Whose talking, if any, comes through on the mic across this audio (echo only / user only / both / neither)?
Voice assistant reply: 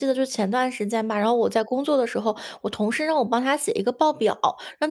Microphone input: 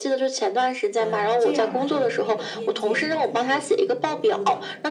both